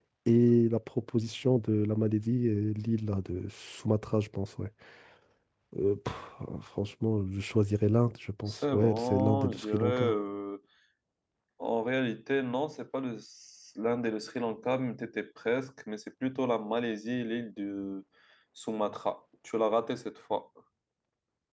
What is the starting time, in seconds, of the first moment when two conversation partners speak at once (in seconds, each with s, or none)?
8.5 s